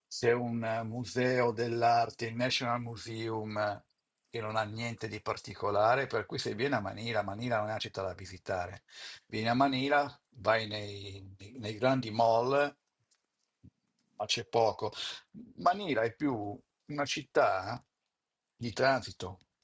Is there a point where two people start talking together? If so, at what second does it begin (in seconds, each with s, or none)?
none